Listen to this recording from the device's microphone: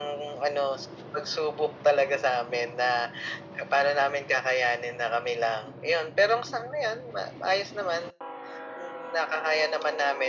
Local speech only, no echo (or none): none